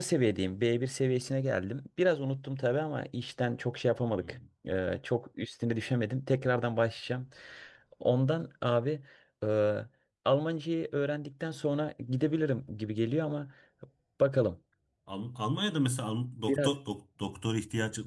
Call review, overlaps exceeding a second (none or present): none